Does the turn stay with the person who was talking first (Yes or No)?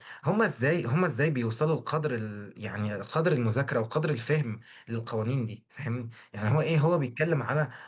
Yes